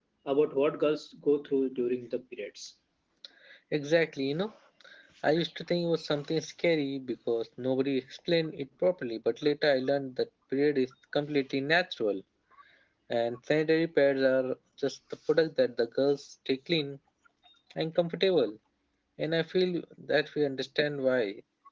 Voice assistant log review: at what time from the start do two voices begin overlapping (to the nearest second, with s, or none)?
none